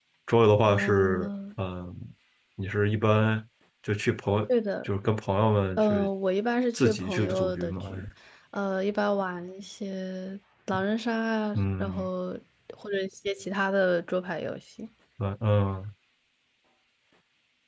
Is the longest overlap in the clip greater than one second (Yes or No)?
Yes